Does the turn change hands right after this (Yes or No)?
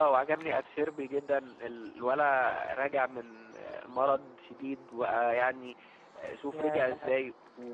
No